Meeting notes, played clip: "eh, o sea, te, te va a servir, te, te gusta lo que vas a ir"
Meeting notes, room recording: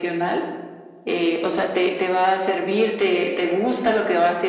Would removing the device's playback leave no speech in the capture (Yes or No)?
Yes